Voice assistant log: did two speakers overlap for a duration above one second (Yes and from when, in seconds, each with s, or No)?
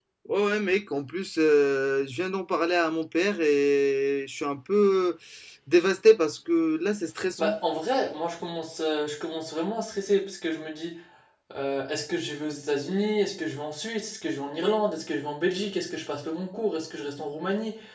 No